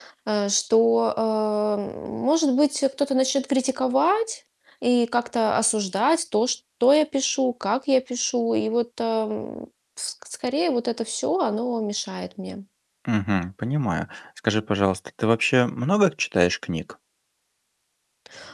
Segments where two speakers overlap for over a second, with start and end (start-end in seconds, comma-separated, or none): none